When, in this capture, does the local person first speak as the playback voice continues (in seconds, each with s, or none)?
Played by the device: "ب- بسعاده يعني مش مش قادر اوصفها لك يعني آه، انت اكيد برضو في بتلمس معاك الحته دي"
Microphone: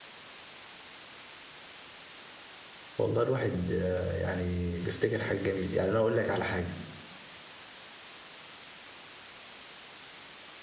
3.0 s